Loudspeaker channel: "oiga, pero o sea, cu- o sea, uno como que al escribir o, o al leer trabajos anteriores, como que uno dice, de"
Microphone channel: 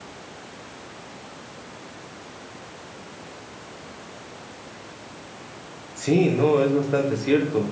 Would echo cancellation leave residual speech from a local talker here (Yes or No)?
Yes